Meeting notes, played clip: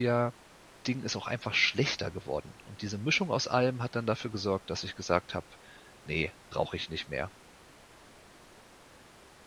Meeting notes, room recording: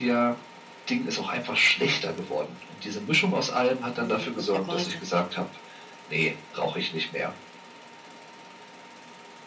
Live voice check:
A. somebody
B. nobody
A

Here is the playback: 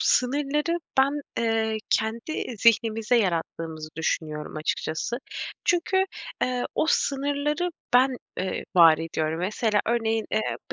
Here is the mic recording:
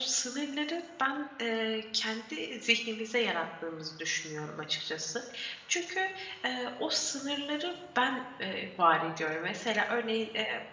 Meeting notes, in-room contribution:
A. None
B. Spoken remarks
A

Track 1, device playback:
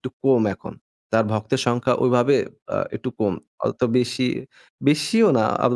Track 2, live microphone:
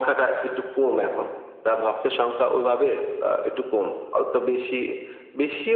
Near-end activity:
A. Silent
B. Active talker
A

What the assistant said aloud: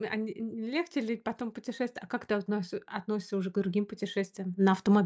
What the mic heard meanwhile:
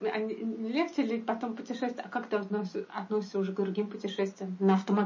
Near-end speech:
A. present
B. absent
B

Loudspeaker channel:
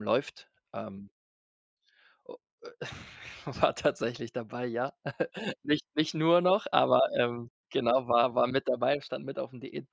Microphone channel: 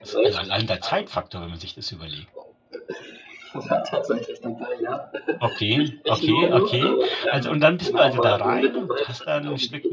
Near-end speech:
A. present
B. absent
A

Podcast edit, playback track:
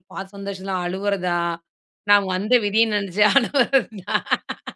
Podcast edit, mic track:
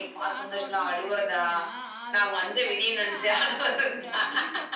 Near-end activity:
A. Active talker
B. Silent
A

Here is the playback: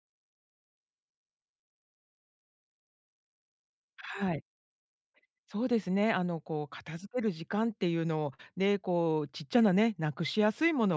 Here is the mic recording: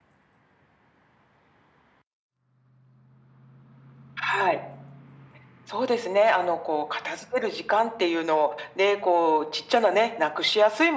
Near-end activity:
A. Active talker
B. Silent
B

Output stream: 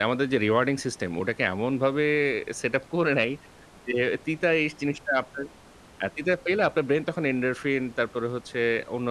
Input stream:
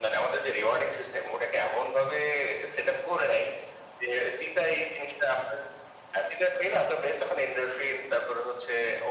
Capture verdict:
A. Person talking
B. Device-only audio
B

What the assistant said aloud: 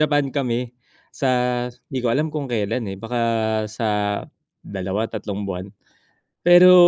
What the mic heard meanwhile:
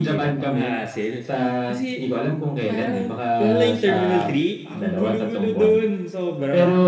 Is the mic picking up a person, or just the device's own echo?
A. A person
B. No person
A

